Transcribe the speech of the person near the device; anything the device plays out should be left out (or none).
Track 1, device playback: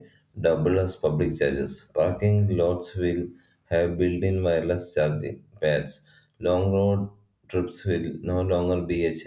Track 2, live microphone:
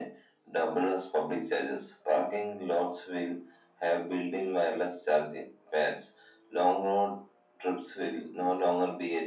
none